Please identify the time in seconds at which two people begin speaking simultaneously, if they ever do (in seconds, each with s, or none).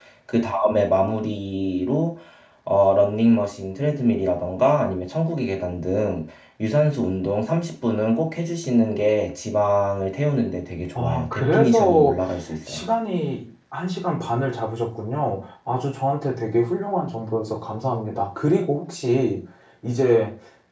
11.0 s